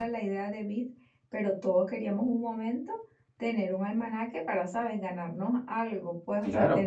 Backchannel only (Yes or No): No